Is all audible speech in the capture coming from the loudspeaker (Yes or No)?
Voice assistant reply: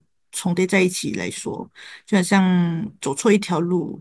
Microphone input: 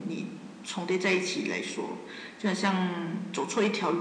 Yes